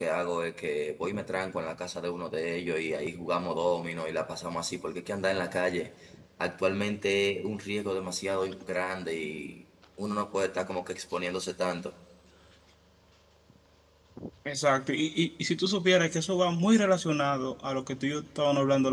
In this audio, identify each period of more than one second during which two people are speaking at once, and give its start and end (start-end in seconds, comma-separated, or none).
none